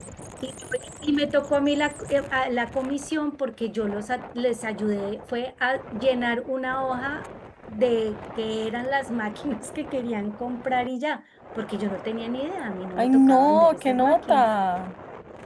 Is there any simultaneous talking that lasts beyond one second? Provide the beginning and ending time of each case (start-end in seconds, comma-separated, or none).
13.0-14.4